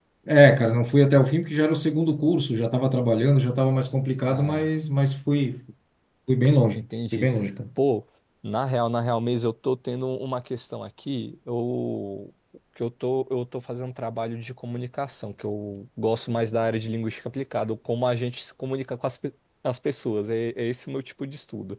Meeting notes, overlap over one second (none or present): none